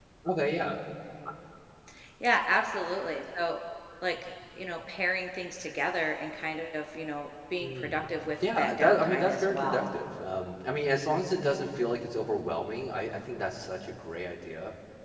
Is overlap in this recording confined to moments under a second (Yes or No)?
No